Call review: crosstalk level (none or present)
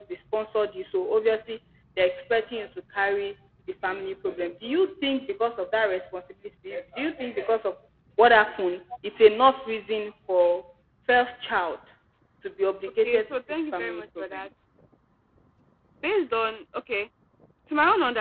present